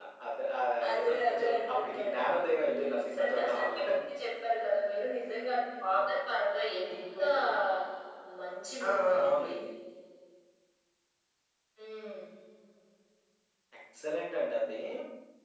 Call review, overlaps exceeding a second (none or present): present